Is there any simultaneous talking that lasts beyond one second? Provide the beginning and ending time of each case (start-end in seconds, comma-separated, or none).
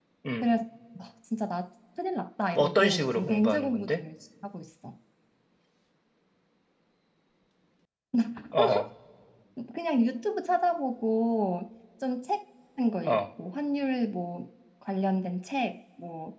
2.5-4.0